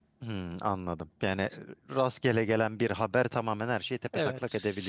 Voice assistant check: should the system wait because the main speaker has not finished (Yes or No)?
No